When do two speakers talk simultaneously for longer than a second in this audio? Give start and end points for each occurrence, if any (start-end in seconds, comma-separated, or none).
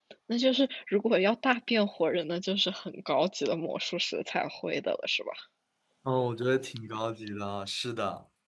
none